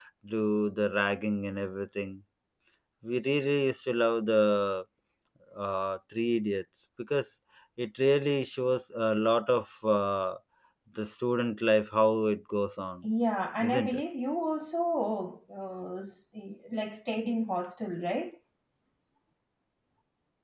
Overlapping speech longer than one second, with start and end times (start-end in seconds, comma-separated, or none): none